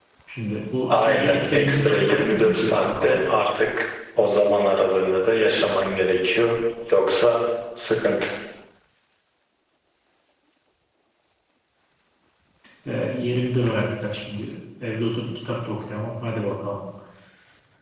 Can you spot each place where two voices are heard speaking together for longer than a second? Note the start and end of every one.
0.9-3.2

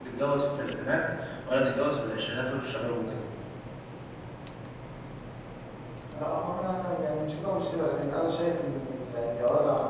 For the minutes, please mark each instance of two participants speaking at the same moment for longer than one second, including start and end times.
none

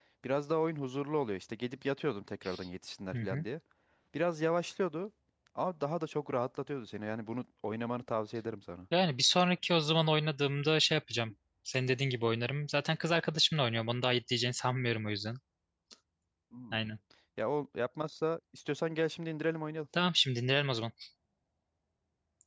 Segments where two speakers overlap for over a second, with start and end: none

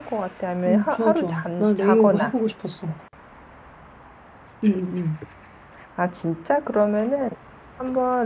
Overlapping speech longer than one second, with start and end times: 0.7-2.2

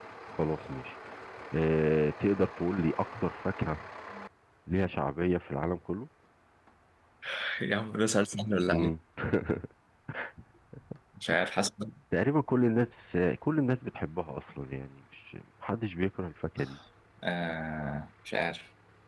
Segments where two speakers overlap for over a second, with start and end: none

